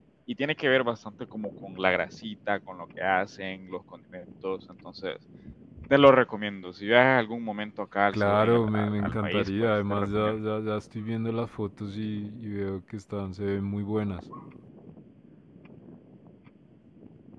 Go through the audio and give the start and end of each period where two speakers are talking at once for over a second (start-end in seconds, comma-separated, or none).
8.1-10.4